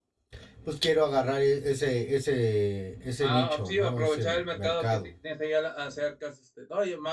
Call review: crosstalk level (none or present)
present